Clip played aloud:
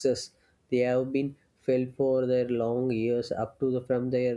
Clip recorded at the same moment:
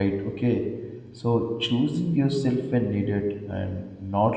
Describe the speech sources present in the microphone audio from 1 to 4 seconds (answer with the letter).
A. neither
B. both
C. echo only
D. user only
D